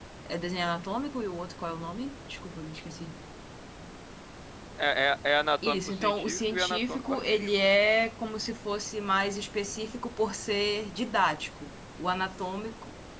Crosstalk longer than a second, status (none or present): present